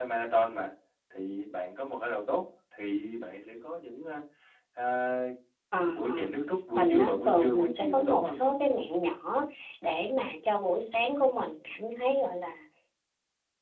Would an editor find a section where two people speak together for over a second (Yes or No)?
Yes